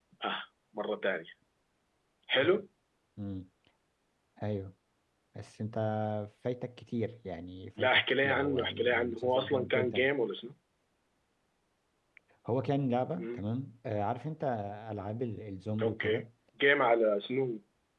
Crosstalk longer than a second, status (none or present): present